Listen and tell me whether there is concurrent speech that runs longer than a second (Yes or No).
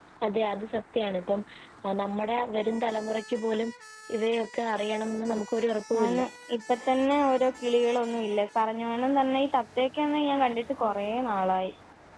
No